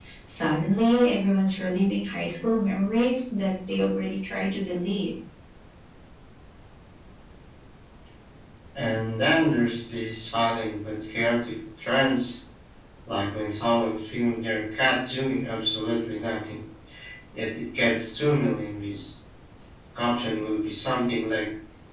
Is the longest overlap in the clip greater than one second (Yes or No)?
No